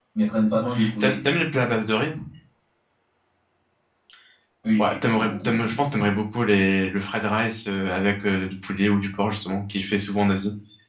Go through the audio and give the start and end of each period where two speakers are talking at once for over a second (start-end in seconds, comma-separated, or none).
4.8-6.0